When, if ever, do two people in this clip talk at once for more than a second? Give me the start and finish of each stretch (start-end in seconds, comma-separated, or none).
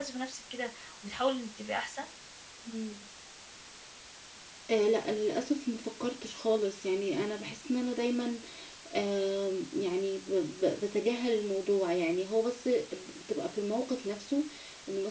none